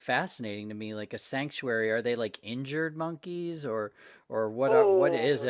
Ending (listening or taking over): taking over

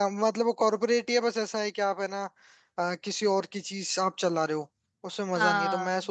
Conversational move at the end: listening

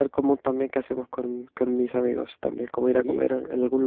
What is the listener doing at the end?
listening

